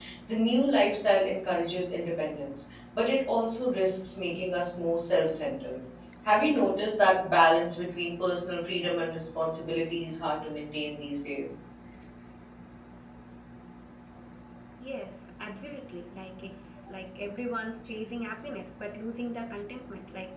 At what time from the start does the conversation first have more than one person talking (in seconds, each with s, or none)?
none